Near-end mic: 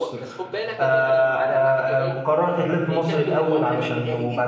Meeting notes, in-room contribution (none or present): present